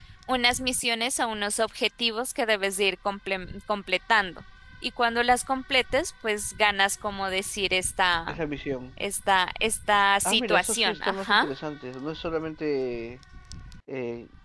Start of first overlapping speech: 10.2 s

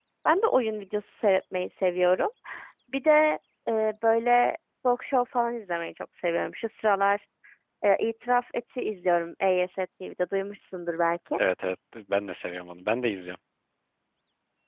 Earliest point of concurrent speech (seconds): none

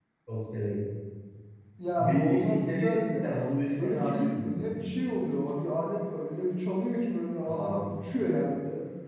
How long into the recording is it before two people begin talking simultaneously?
2.1 s

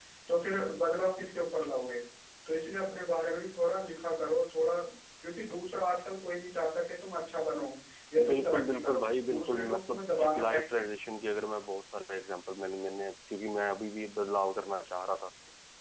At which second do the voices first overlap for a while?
8.3 s

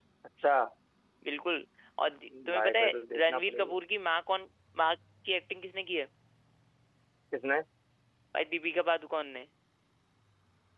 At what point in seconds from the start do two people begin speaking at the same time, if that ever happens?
2.3 s

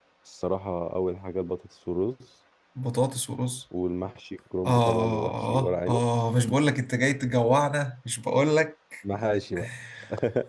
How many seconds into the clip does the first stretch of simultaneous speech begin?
4.7 s

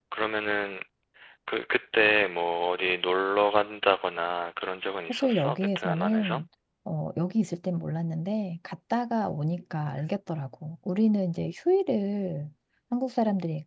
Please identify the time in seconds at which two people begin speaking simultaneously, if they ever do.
5.1 s

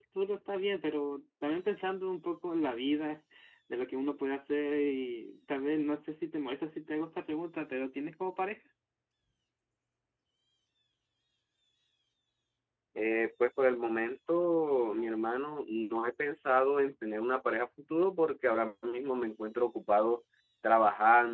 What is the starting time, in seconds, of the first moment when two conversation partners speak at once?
none

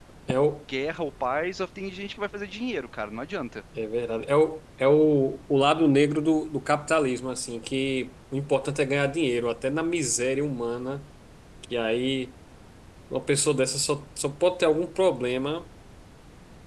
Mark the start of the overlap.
none

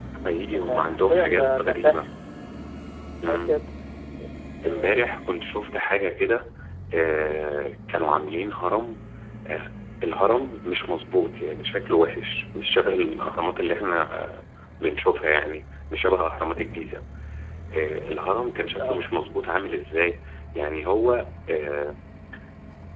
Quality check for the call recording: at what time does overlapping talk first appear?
0.6 s

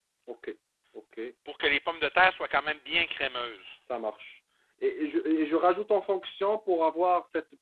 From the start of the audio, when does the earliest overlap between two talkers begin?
none

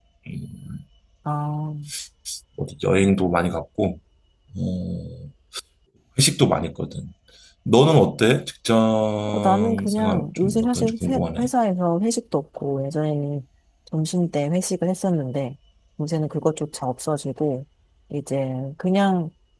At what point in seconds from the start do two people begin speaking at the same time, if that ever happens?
9.3 s

